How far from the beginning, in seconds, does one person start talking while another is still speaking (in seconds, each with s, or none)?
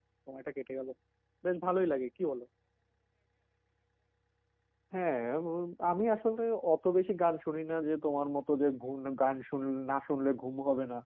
none